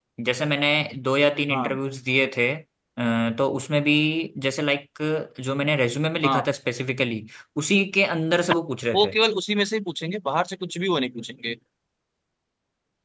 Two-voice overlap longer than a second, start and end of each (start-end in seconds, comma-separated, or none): none